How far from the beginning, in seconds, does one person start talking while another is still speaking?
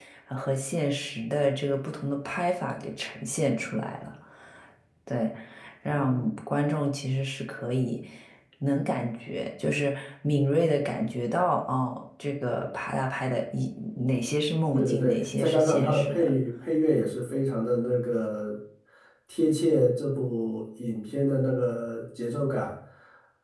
14.7 s

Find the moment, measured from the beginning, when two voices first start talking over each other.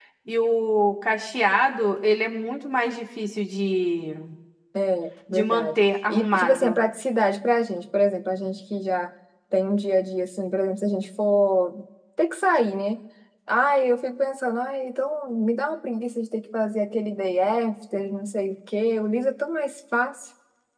5.3 s

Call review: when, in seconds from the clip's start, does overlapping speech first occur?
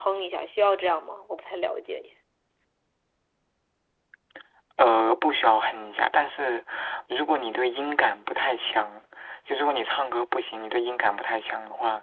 none

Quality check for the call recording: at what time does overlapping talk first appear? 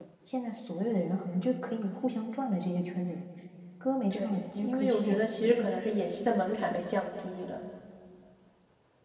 4.1 s

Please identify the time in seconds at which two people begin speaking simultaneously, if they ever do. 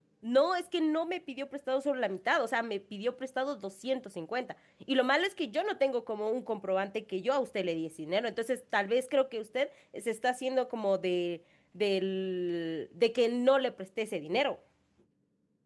none

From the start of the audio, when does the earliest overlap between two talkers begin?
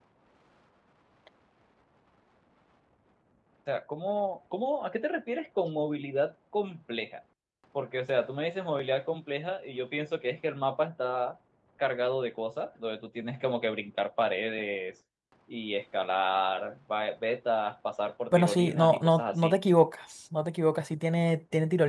18.3 s

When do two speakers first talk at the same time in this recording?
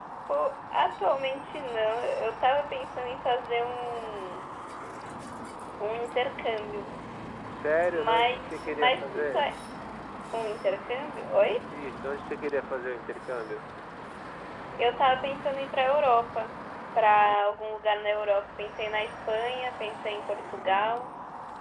7.9 s

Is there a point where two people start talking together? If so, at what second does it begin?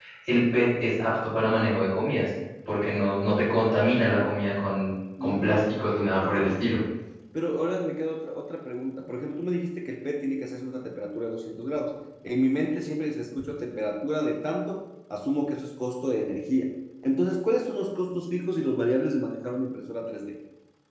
5.2 s

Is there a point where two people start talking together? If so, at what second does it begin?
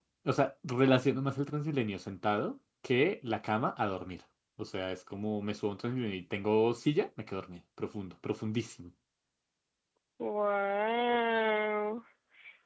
none

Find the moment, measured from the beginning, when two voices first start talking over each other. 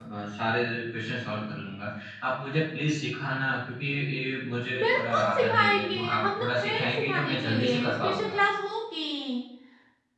4.7 s

